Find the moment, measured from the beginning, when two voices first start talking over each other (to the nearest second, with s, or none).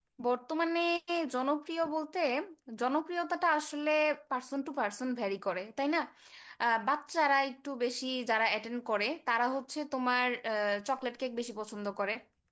none